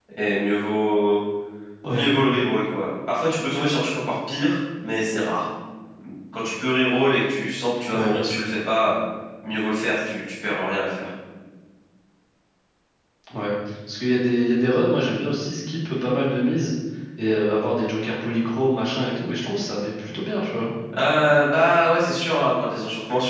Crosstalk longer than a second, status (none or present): none